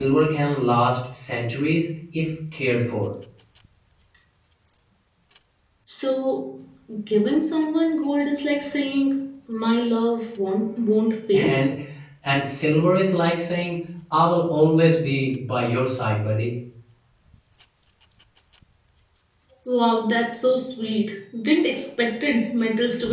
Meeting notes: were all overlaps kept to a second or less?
Yes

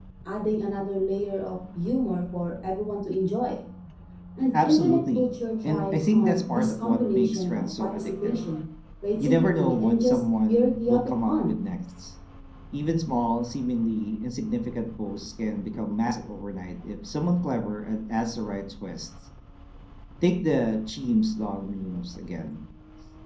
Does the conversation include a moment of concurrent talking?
Yes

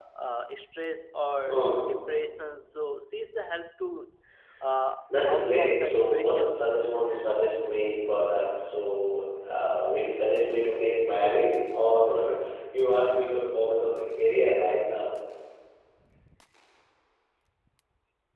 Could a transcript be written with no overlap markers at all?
No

